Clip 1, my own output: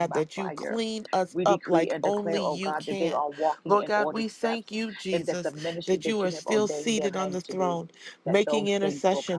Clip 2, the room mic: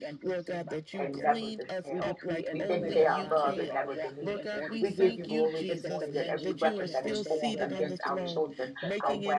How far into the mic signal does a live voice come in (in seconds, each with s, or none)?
1.0 s